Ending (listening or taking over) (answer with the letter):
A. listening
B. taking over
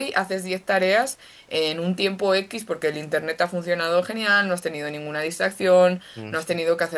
A